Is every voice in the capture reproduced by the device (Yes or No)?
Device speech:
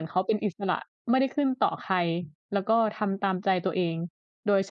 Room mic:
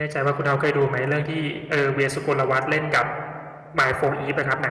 No